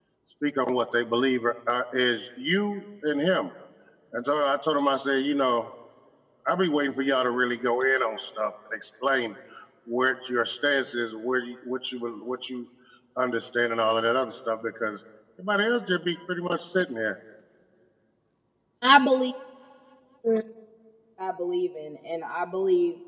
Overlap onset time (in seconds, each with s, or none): none